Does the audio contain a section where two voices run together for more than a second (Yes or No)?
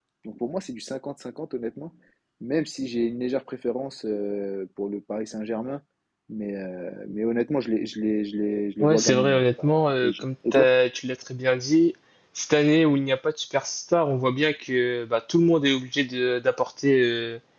Yes